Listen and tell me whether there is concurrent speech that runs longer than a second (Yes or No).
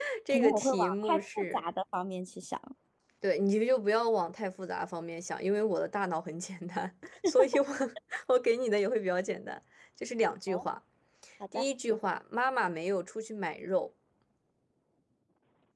Yes